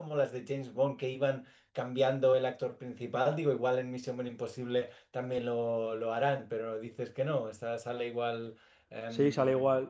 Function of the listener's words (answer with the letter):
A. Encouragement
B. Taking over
B